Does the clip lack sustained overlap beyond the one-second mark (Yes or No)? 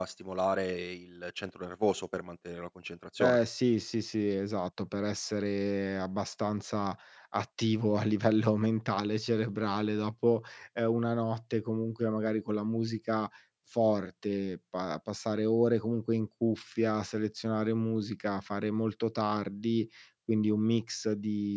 Yes